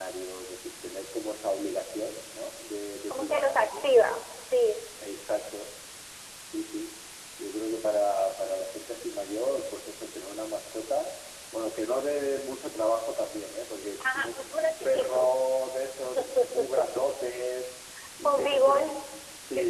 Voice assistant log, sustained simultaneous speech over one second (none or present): present